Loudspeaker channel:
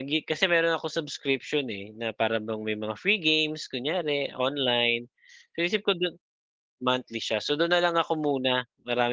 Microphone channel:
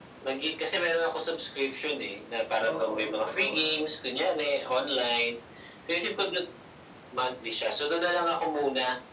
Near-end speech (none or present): present